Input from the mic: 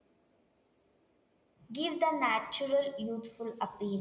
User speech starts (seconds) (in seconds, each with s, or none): 1.7 s